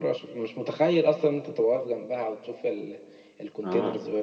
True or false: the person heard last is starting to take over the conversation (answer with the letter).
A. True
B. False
A